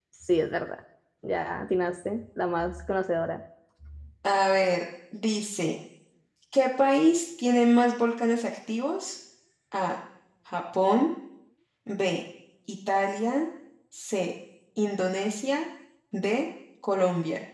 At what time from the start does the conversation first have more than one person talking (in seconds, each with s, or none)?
none